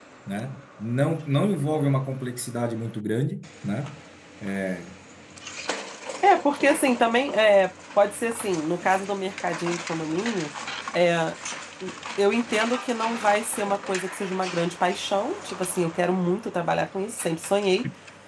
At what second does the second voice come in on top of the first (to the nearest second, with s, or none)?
none